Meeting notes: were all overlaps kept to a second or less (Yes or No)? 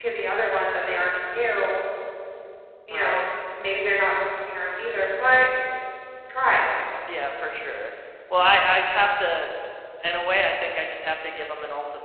Yes